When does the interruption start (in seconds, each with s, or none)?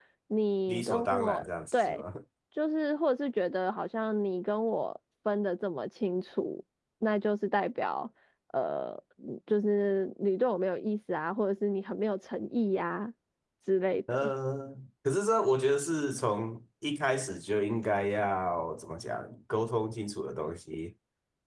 0.7 s